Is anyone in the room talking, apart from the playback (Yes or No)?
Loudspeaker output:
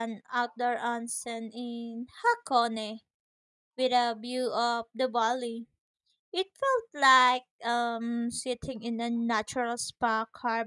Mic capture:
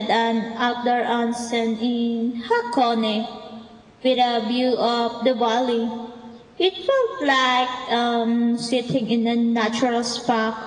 No